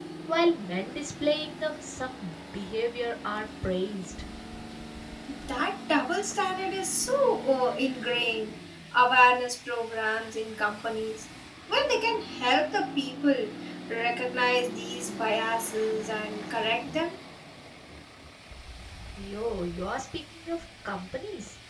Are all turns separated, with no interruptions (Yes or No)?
Yes